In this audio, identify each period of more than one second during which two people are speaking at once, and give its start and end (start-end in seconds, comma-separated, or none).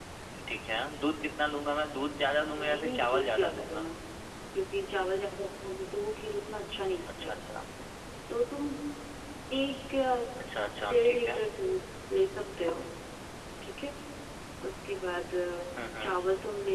2.6-3.9